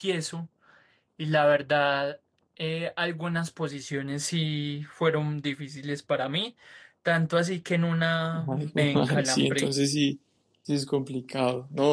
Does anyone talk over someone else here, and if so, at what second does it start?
8.3 s

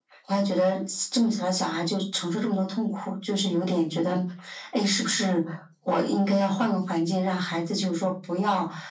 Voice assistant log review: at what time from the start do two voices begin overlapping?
none

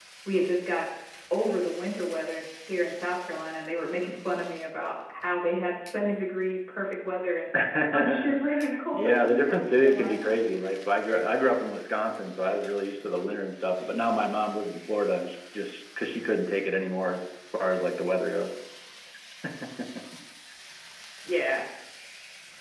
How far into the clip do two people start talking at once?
7.9 s

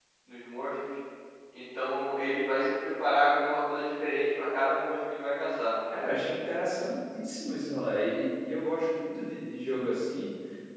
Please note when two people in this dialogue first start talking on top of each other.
none

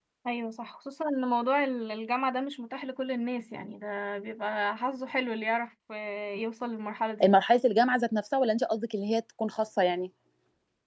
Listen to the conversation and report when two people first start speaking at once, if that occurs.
none

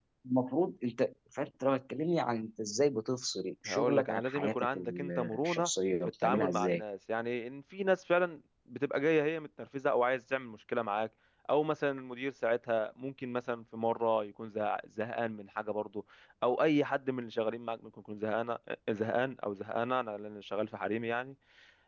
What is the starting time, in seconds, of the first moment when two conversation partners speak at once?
3.6 s

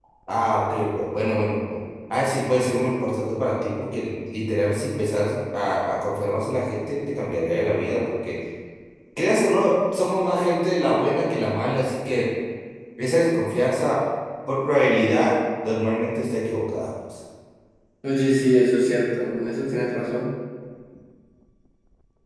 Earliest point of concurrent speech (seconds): none

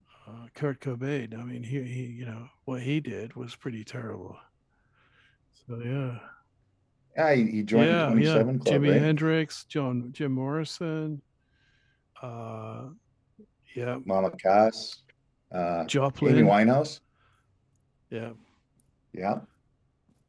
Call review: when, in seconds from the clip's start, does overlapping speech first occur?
7.7 s

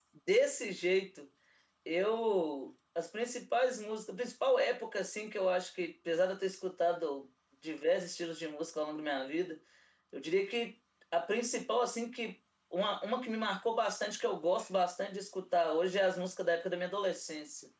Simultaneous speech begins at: none

